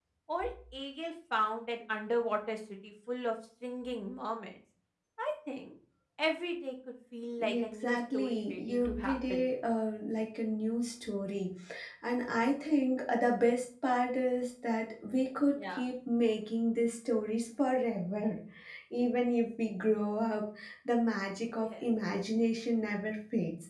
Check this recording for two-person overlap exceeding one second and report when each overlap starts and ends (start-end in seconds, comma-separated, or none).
7.4-9.4